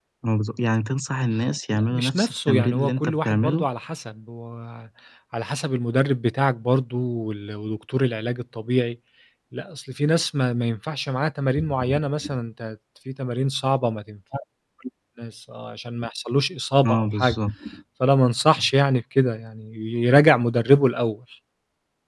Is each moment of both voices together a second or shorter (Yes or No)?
No